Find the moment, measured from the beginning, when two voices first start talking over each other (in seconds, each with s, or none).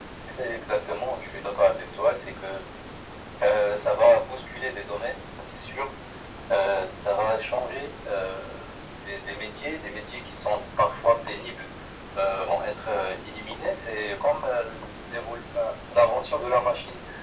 none